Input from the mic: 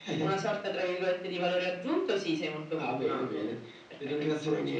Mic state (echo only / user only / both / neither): echo only